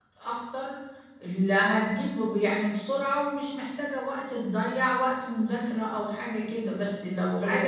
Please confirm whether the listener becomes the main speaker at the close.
No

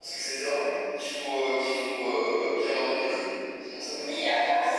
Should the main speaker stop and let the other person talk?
Yes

